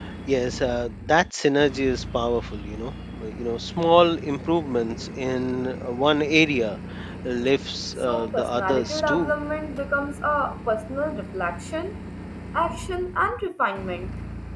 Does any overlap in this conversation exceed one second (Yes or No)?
Yes